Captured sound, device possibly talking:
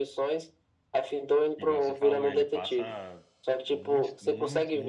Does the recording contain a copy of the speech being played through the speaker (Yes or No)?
Yes